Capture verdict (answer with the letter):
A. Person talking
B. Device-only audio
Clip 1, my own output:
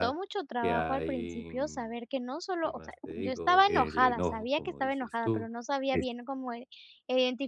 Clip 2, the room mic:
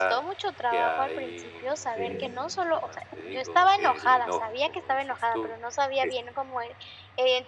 A